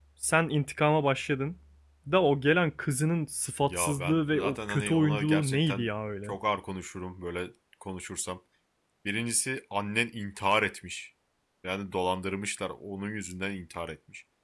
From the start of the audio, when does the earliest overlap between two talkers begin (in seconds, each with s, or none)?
3.6 s